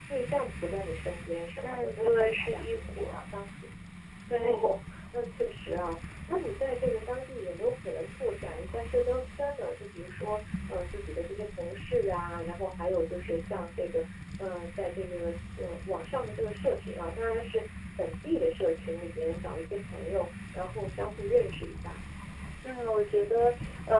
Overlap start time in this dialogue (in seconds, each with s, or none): 1.6 s